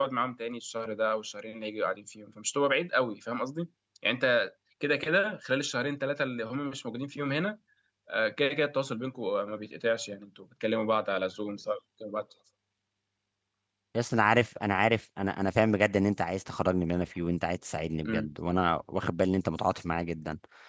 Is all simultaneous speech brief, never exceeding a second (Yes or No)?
Yes